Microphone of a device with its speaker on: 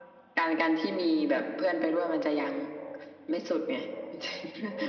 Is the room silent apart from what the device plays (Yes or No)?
Yes